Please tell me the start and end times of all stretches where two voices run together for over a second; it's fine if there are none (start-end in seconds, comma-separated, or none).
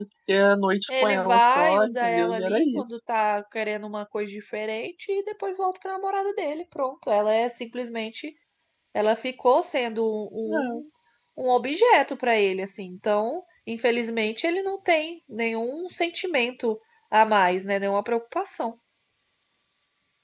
0.9-3.0